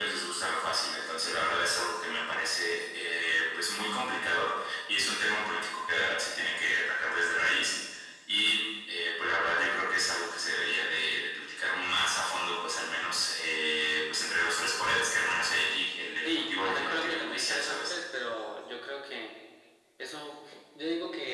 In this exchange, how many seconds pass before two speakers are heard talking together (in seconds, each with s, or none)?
16.2 s